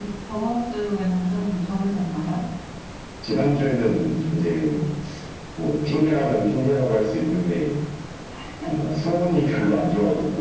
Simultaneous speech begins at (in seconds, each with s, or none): none